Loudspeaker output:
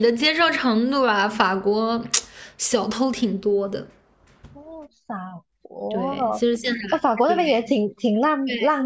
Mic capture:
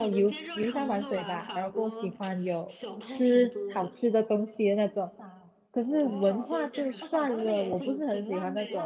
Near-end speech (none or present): present